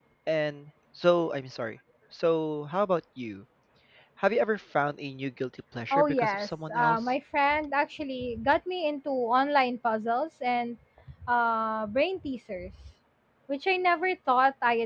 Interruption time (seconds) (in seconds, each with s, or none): 5.9 s